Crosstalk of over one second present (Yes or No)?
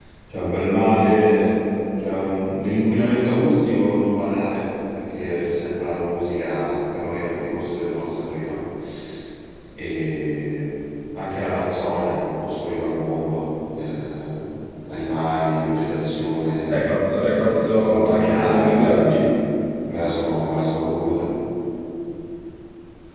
Yes